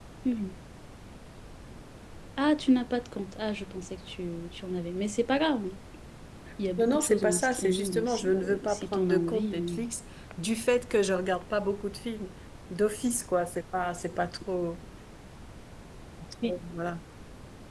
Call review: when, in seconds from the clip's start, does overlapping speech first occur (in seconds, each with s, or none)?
6.8 s